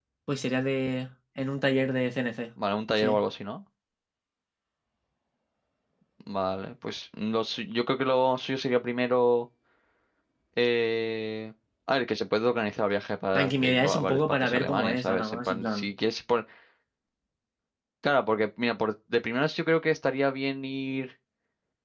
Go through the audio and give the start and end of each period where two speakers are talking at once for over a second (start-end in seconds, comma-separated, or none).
13.3-15.9